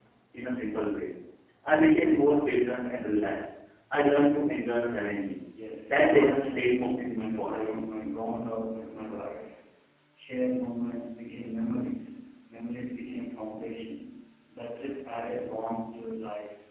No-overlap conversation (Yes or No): No